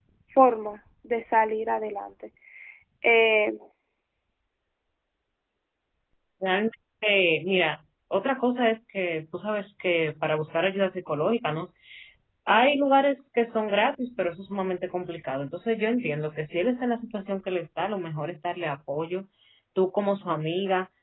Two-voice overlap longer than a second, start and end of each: none

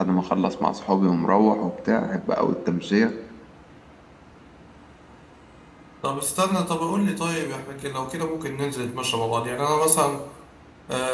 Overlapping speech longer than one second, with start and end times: none

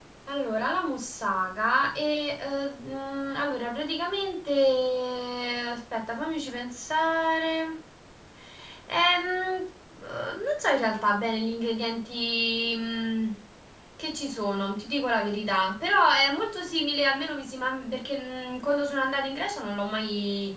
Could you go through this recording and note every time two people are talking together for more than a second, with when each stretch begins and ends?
none

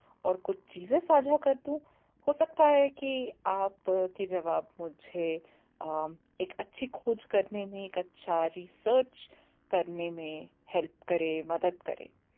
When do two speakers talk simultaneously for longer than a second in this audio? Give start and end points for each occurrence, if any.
none

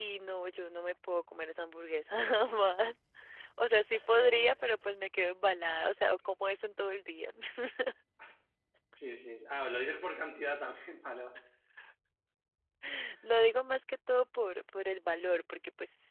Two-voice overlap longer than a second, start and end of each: none

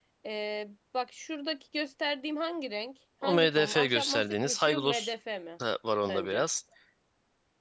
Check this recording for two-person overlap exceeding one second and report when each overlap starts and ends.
3.2-5.1

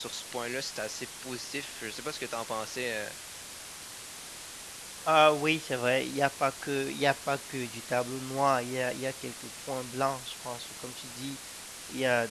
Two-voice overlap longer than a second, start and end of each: none

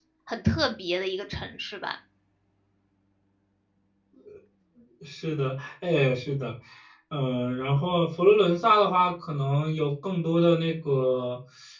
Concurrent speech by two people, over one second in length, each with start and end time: none

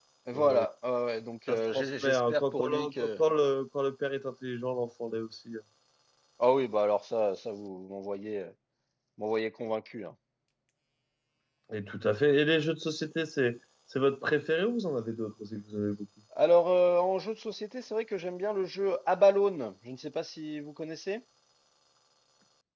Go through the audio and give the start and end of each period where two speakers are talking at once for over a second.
1.5-3.2

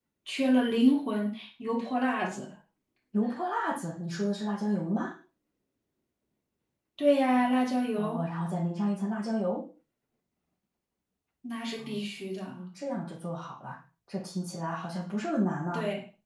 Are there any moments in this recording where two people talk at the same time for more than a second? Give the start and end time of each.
none

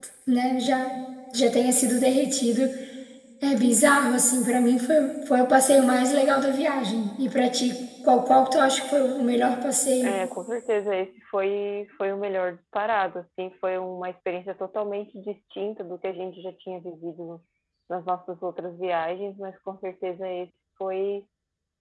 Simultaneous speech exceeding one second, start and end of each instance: none

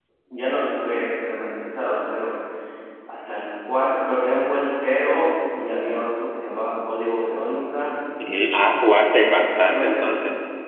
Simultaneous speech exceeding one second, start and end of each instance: 8.9-10.1

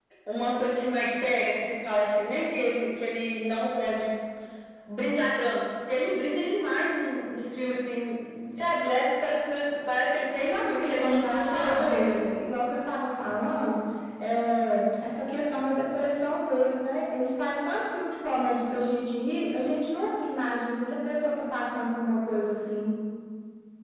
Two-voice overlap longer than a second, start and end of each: 10.4-12.2

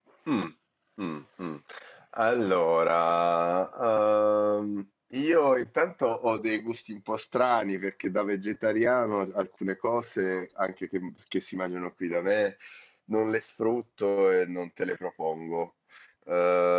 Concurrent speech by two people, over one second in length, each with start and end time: none

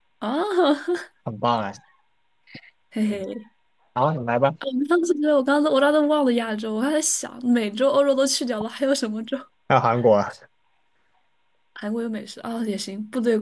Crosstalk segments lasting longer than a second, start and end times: none

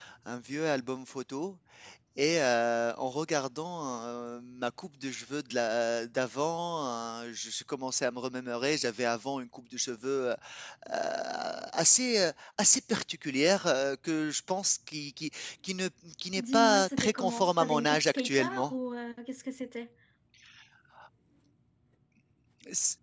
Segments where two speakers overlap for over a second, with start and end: 16.4-18.7

